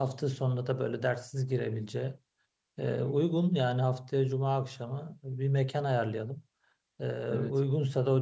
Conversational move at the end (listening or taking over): listening